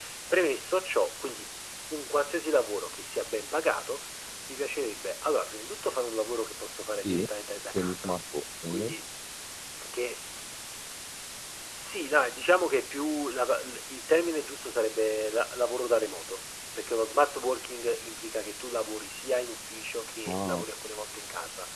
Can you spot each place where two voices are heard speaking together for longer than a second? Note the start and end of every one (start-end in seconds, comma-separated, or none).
none